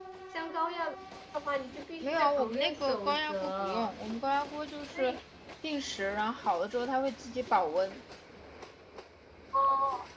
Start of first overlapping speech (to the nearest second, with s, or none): 2 s